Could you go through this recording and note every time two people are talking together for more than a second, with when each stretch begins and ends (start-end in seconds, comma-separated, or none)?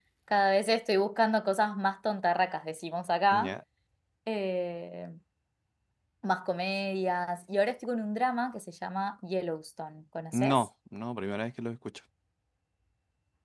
none